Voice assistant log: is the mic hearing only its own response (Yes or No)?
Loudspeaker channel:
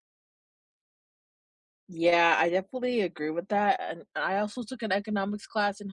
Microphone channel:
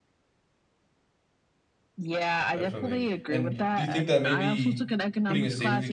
No